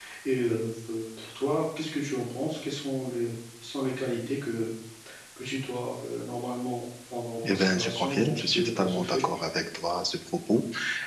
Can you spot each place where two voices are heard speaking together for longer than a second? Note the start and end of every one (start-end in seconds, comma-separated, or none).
7.5-9.2